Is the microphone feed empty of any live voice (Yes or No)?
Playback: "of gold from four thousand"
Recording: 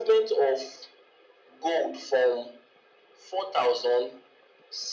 Yes